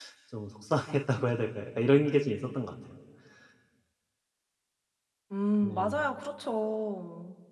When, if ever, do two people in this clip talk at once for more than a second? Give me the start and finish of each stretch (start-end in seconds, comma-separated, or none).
none